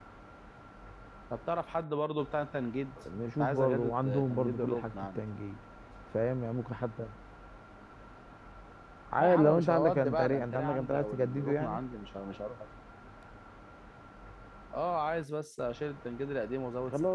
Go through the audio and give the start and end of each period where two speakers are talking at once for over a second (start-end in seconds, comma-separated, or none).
3.1-5.2, 9.2-11.8